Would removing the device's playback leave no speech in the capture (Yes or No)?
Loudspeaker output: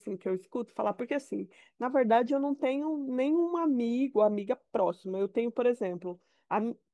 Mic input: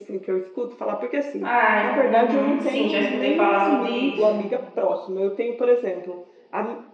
No